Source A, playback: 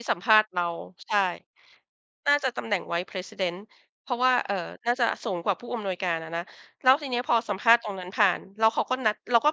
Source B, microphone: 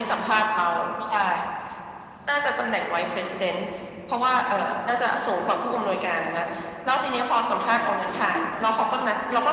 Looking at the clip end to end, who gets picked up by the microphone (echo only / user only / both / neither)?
both